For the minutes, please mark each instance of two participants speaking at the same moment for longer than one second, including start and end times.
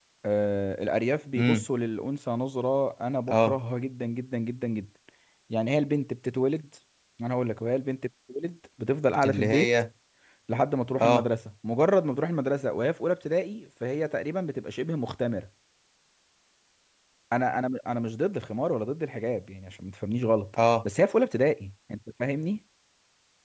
none

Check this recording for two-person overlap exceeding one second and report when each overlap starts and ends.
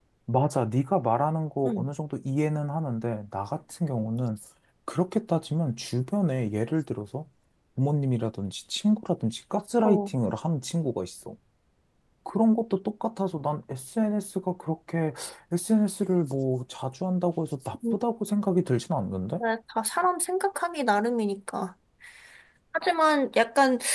none

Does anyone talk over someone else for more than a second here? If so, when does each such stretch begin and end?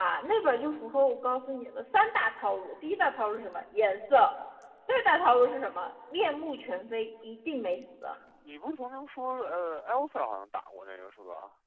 none

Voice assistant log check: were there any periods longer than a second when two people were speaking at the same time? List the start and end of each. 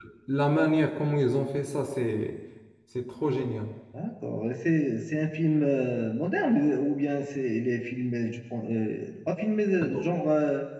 none

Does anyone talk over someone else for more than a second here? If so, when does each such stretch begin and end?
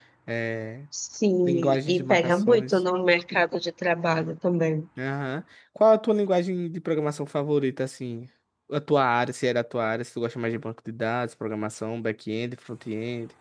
1.4-2.7

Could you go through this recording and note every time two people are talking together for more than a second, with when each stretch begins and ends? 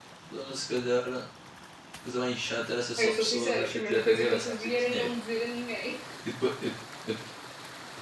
3.0-5.1

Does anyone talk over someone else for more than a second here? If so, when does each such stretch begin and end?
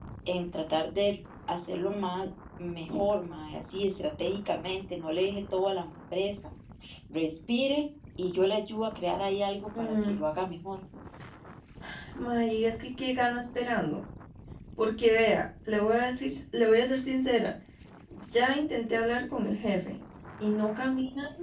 none

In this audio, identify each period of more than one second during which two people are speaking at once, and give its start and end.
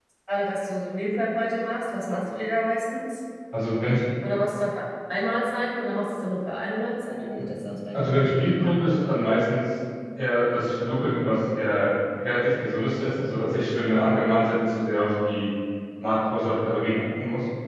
none

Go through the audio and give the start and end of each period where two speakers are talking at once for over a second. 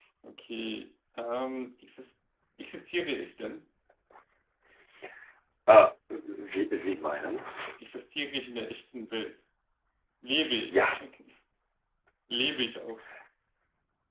none

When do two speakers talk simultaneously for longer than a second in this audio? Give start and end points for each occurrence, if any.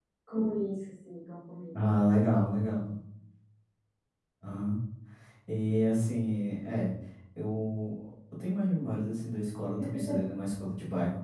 none

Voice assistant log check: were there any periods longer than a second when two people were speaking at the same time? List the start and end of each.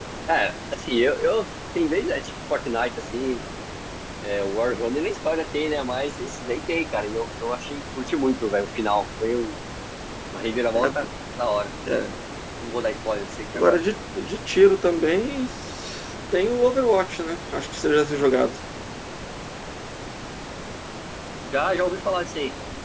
none

